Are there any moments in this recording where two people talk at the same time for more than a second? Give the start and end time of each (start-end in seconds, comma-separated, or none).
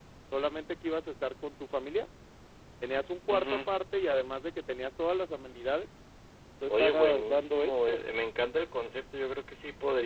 6.7-8.0